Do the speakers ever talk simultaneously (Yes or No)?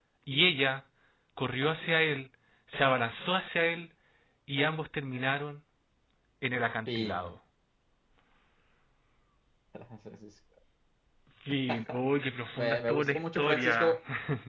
Yes